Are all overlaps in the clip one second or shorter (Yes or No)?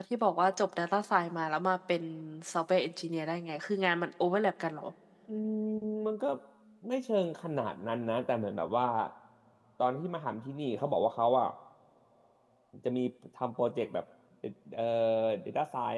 Yes